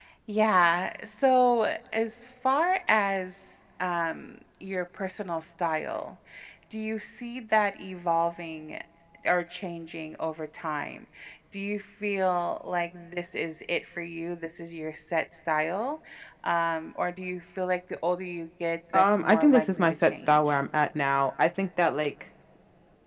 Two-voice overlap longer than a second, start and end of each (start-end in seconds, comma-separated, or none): 18.9-20.6